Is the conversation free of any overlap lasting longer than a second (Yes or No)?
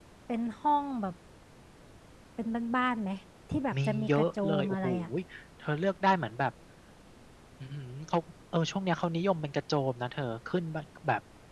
No